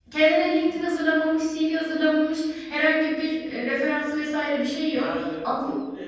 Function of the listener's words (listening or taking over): taking over